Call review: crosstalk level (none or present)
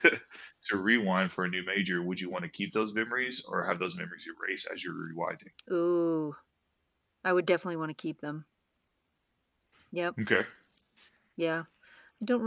none